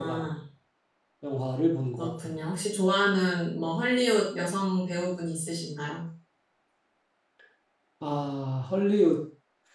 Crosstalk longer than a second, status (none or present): none